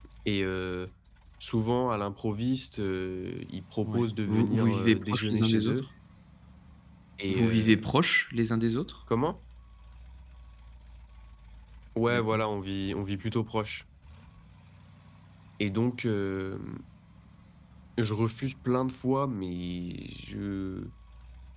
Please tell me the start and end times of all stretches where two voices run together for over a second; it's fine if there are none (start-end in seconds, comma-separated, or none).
3.8-5.9